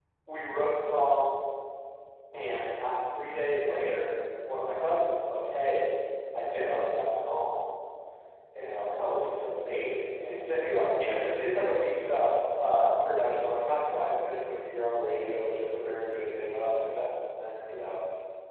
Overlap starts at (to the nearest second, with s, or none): none